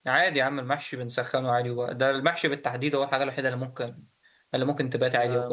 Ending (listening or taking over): taking over